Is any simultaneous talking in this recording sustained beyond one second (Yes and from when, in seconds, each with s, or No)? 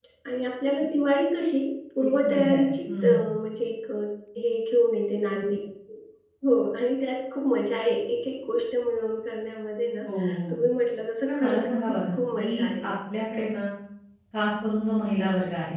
Yes, from 2.0 s